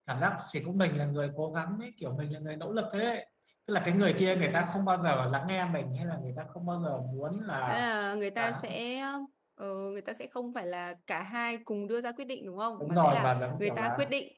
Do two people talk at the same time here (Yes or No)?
Yes